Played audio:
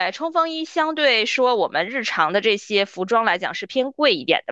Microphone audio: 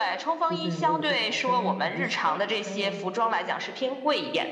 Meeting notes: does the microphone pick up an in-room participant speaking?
Yes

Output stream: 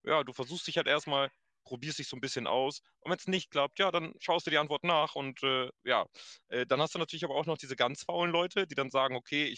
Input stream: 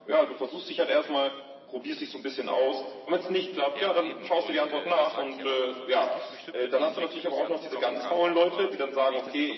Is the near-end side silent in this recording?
No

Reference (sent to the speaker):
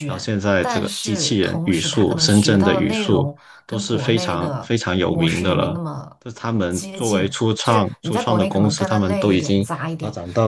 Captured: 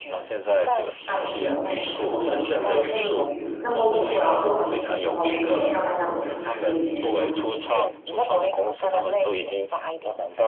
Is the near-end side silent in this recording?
No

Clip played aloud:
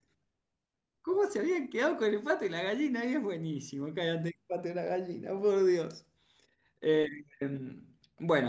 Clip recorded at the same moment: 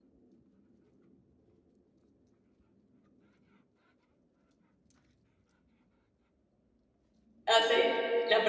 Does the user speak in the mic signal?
Yes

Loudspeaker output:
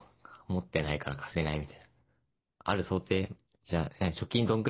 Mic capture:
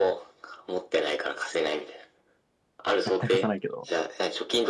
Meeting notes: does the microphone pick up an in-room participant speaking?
Yes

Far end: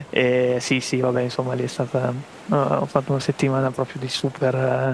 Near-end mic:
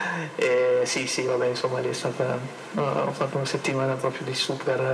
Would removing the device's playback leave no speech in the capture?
Yes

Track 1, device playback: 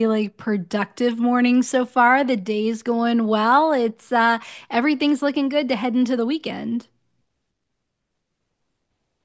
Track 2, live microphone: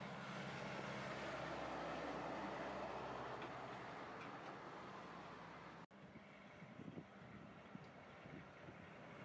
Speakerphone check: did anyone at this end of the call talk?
No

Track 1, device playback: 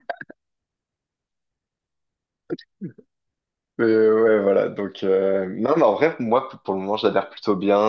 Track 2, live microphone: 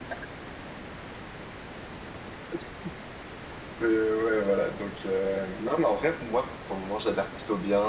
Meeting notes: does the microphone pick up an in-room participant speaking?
No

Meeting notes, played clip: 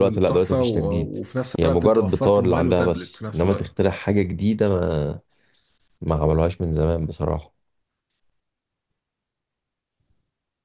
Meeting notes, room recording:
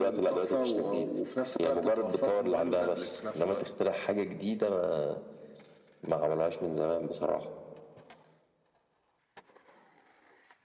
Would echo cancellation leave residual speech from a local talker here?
No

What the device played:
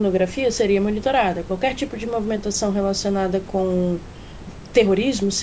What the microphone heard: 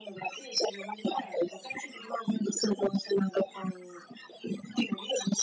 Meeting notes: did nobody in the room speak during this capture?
Yes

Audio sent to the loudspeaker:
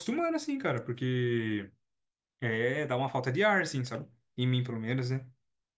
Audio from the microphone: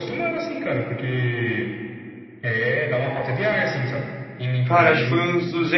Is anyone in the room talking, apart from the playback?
Yes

